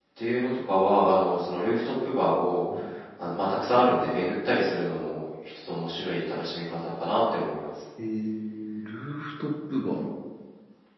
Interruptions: none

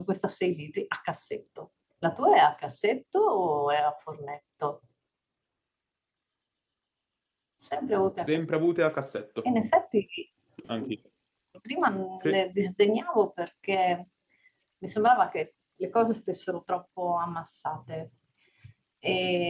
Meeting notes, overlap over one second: none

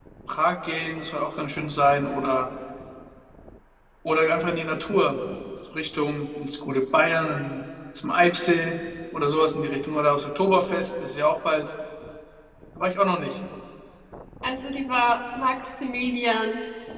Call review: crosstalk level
none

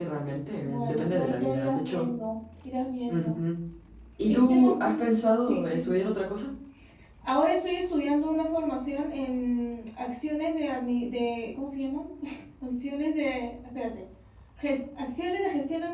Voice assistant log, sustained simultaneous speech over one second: present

